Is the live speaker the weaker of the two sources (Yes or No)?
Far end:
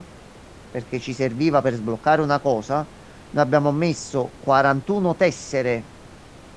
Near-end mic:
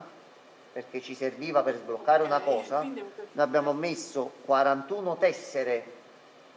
Yes